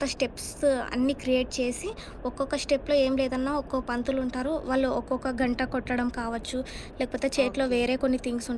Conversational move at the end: listening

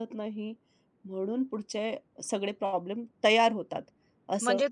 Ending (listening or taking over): taking over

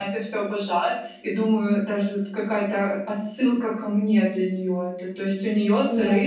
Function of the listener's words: listening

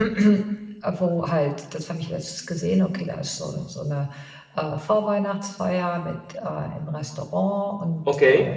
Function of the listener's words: listening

